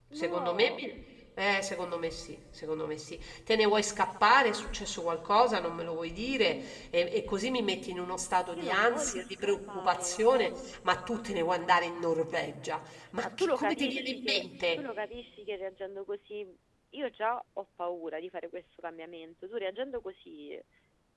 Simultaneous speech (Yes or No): Yes